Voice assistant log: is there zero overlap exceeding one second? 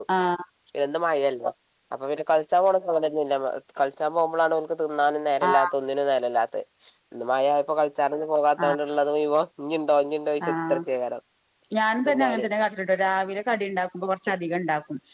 Yes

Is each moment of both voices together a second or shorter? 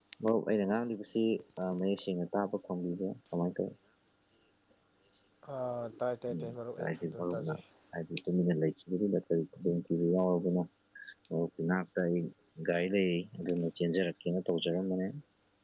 No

